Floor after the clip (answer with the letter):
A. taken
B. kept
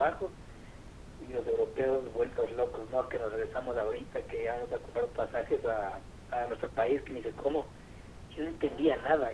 B